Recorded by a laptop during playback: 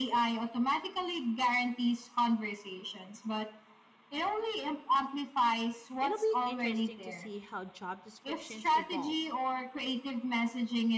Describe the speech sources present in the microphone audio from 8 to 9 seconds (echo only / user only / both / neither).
both